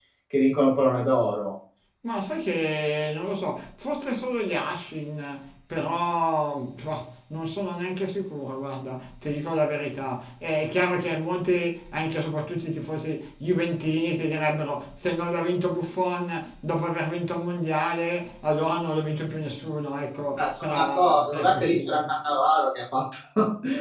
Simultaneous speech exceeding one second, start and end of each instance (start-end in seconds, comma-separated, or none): 20.4-22.1